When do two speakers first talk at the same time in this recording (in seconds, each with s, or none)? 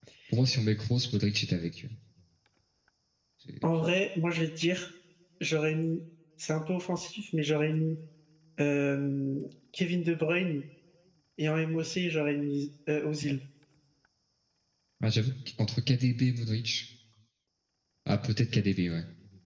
none